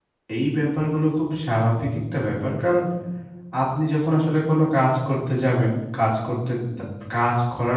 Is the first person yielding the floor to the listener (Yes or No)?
No